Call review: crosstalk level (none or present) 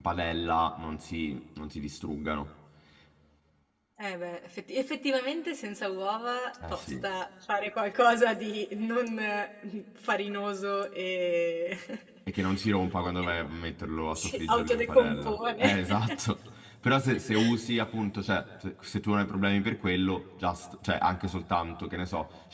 present